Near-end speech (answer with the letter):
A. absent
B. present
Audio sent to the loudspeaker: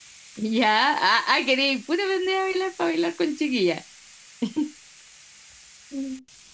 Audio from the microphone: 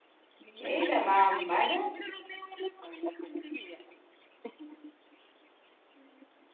B